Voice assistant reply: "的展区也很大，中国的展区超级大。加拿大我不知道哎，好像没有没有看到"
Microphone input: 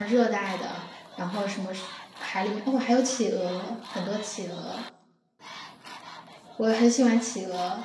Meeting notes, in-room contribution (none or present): present